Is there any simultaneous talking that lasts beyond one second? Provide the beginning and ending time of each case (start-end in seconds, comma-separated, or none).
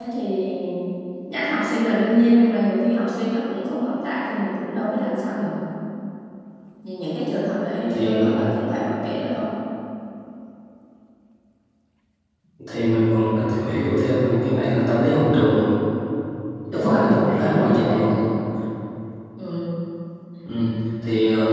16.7-18.2